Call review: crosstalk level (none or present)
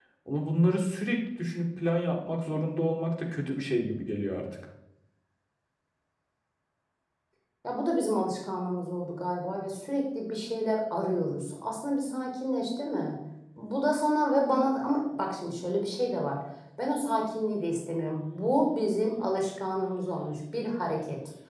none